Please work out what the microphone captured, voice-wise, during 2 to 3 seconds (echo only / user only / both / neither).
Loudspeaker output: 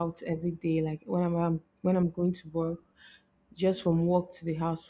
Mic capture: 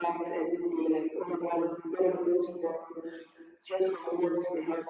echo only